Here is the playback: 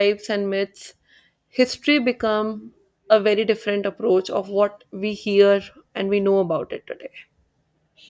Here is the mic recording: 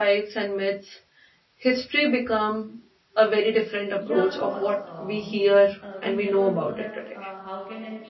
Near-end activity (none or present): present